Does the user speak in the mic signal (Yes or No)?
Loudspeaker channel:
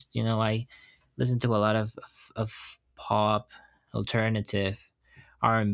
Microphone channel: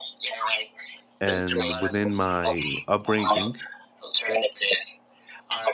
Yes